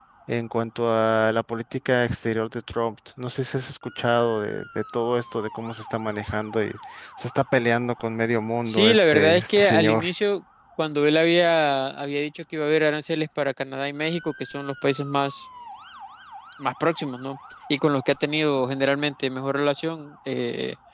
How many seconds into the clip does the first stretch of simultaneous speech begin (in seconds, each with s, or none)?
8.7 s